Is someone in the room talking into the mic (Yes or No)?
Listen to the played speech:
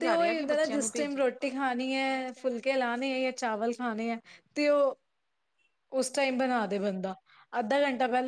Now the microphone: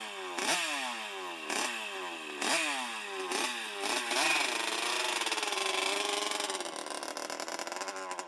No